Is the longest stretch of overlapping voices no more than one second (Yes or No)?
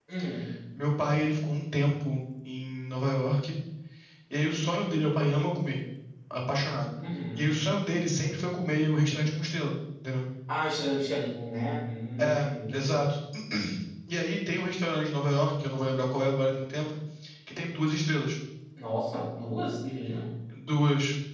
Yes